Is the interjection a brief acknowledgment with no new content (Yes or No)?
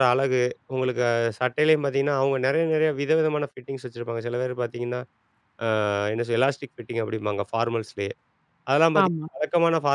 Yes